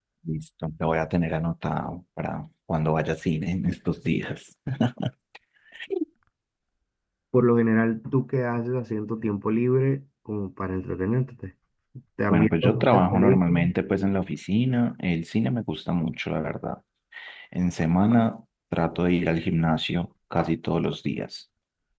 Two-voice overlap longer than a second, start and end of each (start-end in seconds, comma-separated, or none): 12.3-13.7